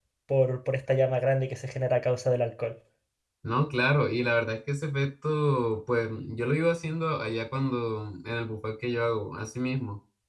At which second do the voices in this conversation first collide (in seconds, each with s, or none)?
none